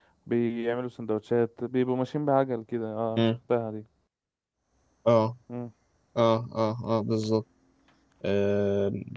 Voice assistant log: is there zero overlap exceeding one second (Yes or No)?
Yes